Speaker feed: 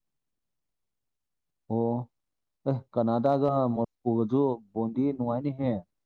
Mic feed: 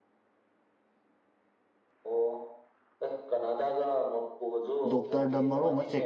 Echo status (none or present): present